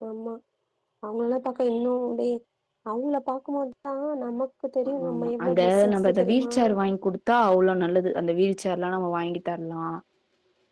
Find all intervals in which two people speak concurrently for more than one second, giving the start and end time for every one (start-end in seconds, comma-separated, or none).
4.9-6.5